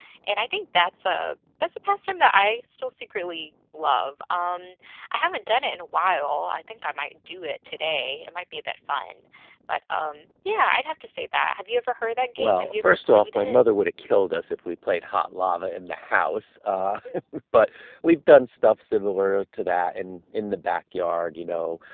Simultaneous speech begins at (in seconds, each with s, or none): 12.4 s